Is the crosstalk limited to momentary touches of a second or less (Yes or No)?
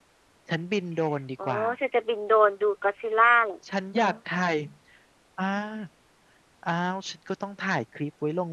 Yes